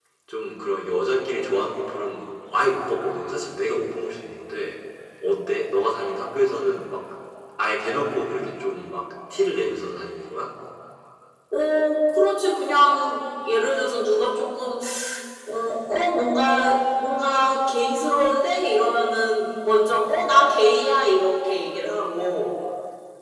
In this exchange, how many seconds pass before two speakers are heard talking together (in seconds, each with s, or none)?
none